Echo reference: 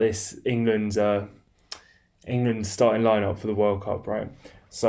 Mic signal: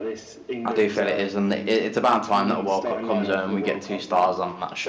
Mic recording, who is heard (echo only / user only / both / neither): both